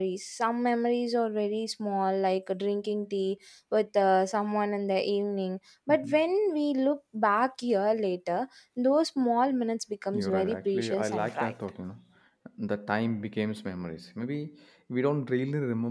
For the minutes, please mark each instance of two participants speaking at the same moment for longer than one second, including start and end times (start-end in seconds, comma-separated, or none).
10.1-11.5